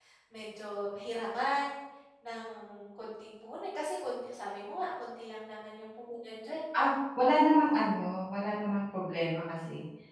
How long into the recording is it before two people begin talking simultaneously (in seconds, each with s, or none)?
none